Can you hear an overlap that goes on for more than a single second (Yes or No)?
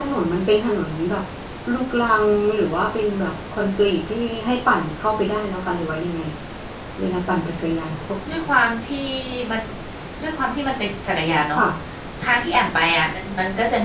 No